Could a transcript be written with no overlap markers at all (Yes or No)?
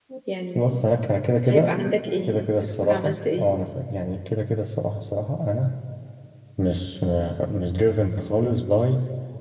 No